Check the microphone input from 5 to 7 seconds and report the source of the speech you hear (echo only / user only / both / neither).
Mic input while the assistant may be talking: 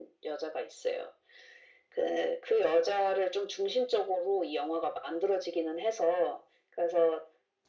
echo only